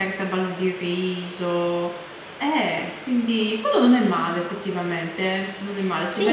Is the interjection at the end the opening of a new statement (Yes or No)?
Yes